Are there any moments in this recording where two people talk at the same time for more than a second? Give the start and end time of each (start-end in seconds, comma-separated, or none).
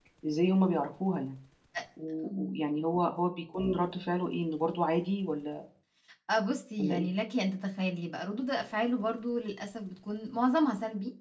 none